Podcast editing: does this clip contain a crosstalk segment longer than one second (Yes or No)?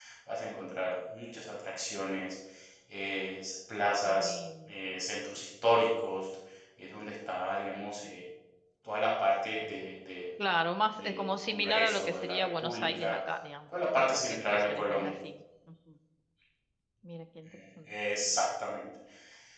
Yes